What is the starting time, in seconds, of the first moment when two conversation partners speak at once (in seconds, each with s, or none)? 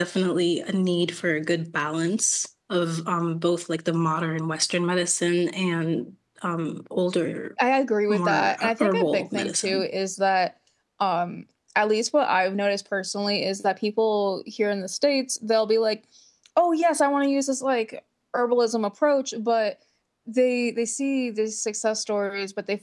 8.1 s